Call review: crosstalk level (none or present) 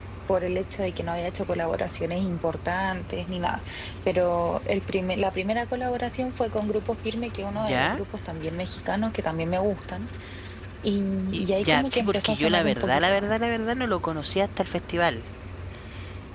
present